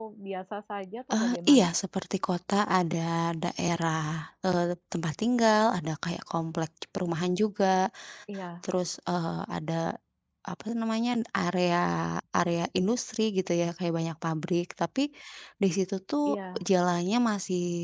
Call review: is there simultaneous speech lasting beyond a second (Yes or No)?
No